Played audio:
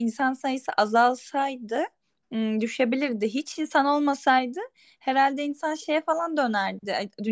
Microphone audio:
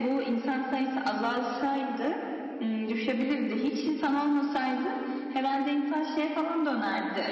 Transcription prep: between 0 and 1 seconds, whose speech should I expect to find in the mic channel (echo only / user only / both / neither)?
echo only